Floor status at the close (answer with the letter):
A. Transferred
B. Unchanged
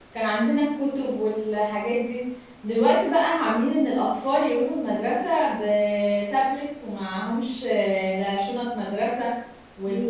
B